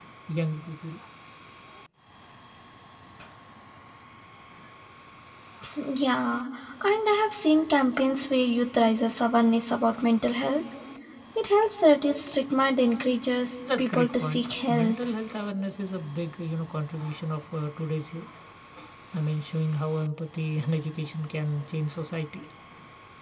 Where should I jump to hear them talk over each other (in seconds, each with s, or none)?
13.6 s